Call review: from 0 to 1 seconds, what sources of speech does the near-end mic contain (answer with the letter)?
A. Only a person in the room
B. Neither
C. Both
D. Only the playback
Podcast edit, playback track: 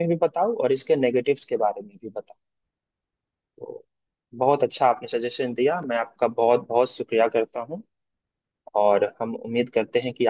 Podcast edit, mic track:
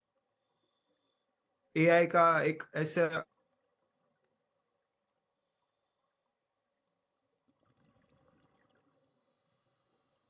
B